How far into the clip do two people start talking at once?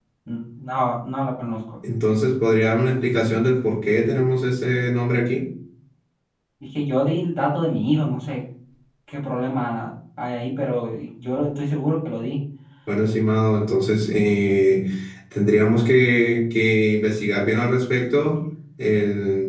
none

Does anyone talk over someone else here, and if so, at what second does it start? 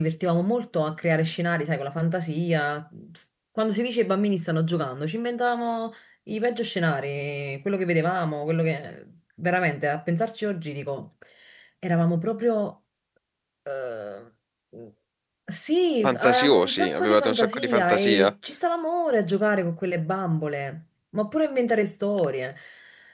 16 s

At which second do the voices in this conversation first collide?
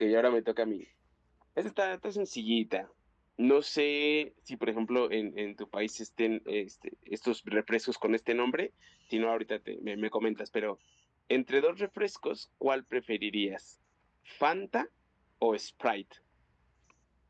none

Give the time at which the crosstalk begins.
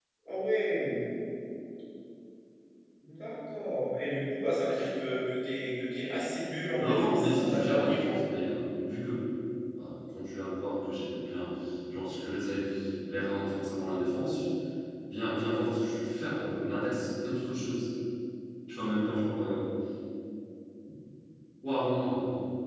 7 s

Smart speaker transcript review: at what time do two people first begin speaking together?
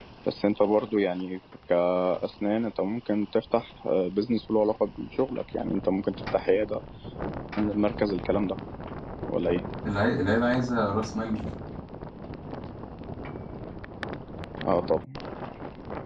none

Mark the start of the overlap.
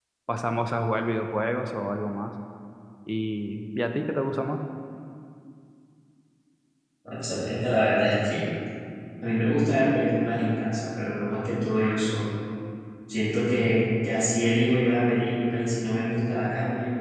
none

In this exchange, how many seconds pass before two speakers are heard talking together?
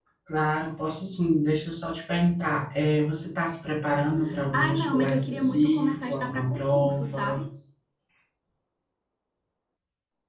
5 s

